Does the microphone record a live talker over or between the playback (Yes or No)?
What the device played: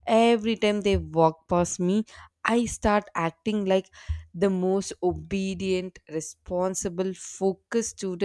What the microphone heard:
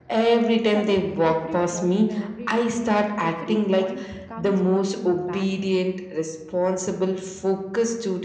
Yes